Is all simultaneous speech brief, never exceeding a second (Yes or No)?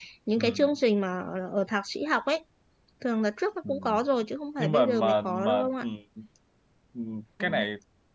No